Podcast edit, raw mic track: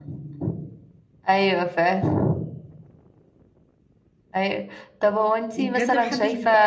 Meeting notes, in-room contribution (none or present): present